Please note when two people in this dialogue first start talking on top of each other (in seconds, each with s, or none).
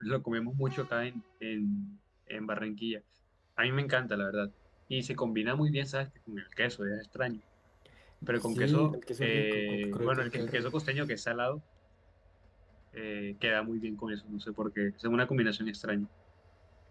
8.4 s